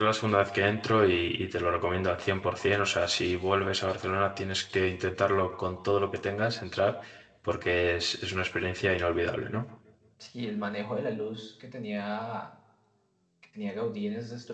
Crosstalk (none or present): none